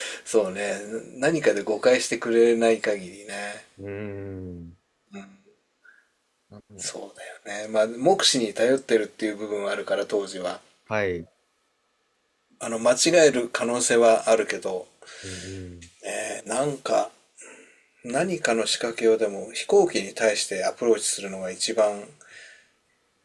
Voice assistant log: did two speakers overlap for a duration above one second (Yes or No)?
No